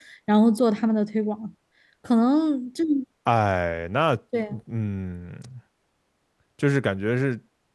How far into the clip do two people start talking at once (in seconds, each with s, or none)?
none